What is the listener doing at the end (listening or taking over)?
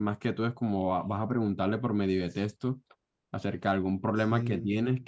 listening